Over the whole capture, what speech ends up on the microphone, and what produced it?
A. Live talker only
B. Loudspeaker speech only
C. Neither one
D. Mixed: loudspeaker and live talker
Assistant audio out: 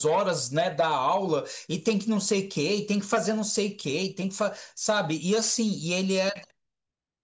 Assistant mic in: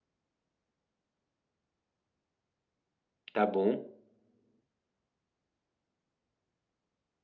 A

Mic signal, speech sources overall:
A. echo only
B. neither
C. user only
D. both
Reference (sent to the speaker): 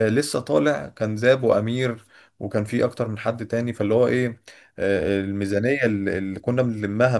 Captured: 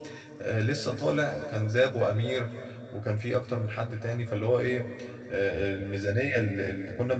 A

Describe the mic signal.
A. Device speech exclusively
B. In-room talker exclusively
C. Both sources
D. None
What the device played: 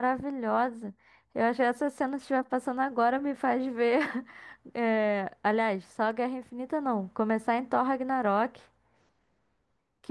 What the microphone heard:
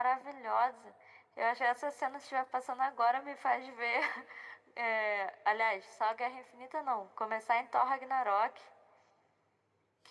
A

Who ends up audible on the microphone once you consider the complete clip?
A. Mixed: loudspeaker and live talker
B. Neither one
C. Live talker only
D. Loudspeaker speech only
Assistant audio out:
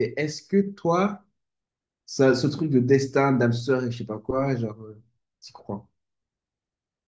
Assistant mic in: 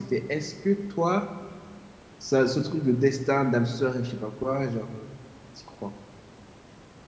D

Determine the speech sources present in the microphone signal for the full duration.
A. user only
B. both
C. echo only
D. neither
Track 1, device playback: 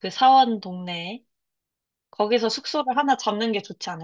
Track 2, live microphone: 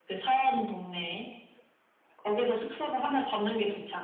C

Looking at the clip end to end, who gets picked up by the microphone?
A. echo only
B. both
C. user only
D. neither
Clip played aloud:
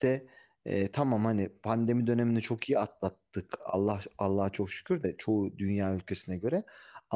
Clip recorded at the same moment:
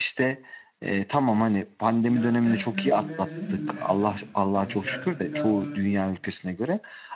B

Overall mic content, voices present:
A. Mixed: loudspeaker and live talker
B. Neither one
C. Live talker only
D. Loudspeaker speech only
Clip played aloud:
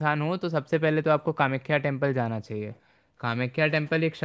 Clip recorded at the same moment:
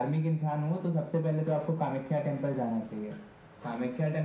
D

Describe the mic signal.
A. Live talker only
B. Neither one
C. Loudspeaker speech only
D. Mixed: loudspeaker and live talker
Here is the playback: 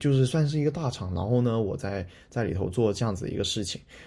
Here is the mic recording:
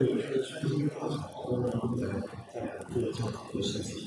C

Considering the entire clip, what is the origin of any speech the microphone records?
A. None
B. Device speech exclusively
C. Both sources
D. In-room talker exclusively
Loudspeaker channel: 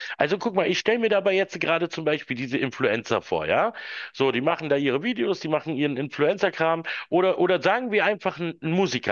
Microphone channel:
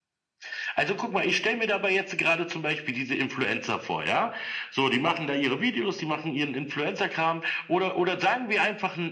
B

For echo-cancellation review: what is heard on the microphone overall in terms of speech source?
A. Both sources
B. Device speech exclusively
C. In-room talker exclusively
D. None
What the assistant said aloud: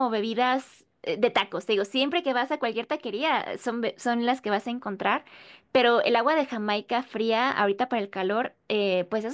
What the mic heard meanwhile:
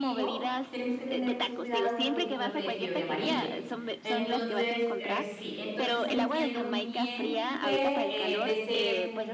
A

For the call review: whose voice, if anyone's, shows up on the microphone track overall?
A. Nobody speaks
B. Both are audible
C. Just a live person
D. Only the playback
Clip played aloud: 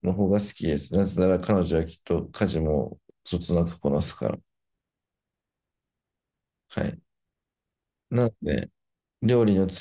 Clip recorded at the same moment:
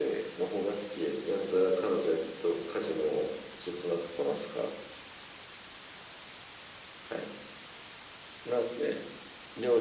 D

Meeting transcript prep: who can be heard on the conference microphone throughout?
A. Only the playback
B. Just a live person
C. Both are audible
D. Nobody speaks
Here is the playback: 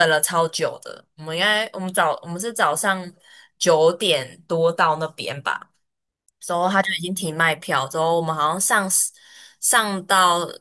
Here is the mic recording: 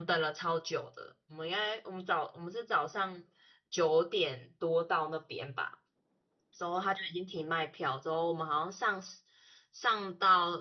A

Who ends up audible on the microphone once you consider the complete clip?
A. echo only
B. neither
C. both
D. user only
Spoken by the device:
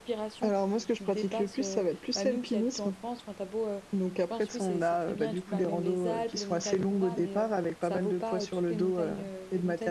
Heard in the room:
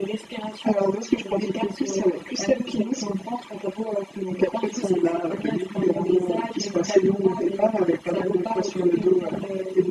A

